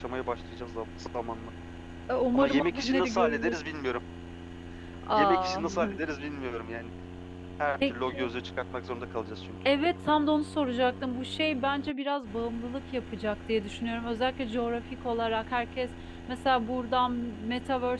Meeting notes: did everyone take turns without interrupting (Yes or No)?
No